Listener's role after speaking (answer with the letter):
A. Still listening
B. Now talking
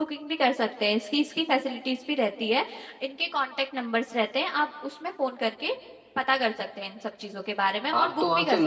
B